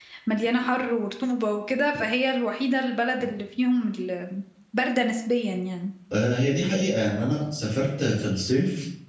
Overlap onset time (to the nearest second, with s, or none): none